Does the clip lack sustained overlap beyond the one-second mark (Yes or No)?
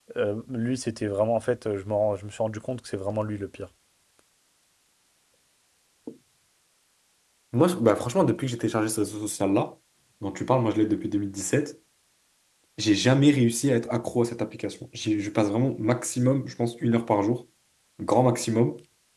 Yes